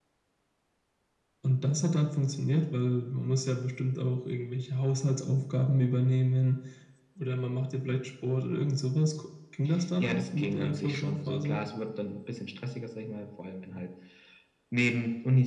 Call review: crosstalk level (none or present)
present